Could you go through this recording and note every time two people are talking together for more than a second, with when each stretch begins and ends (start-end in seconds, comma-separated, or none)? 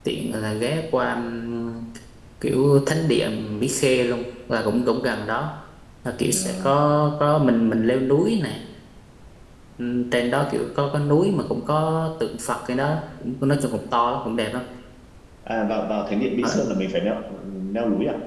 none